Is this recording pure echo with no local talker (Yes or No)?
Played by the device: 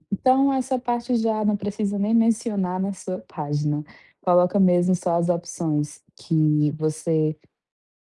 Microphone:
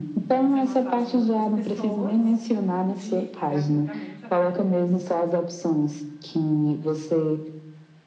No